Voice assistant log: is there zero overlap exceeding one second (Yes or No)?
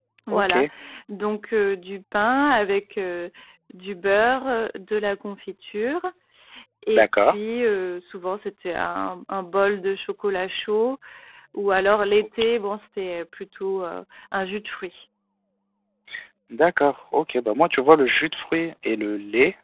Yes